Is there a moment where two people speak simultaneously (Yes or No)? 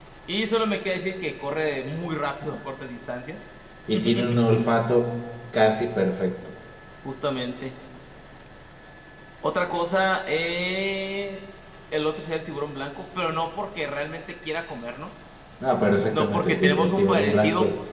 Yes